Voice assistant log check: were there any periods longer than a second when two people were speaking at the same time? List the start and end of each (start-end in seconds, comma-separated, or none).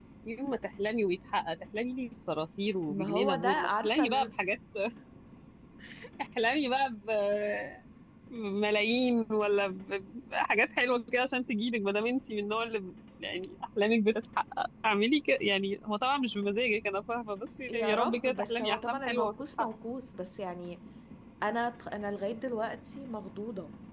2.9-4.3, 17.7-19.7